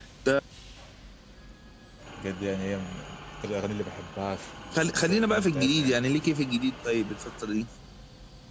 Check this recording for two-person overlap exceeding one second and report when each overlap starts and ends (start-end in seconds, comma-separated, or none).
4.7-6.0